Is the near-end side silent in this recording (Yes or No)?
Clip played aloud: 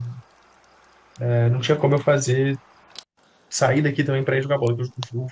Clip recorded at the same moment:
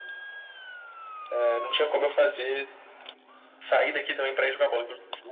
Yes